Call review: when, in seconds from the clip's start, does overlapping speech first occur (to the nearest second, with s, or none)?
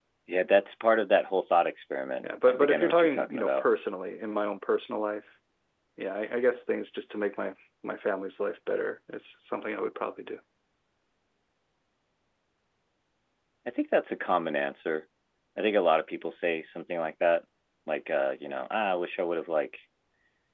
2 s